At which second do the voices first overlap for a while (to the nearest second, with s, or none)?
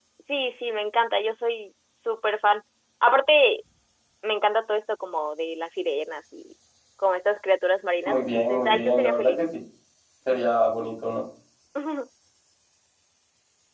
8 s